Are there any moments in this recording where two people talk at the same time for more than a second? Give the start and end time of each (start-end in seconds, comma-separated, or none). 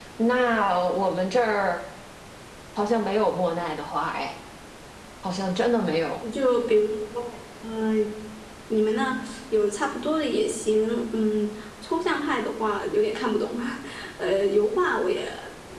none